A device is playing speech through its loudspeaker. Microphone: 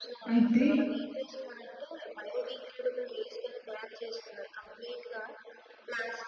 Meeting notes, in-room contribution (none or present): present